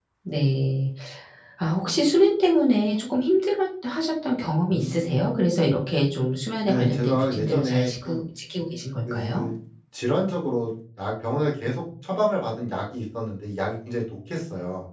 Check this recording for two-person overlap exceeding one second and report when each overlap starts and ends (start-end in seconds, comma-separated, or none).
6.6-8.2